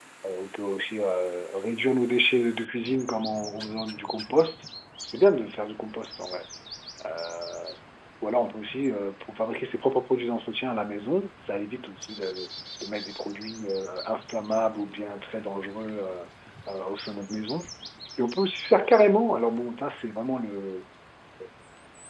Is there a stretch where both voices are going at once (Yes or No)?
No